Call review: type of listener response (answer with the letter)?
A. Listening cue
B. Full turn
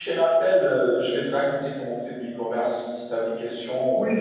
B